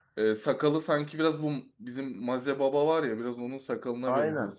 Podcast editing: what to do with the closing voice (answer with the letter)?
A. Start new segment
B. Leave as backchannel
A